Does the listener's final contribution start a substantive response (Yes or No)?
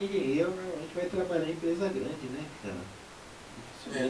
No